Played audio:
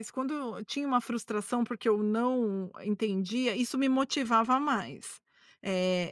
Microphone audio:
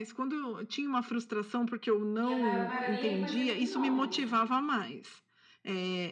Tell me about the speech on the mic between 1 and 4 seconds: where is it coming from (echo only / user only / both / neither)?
both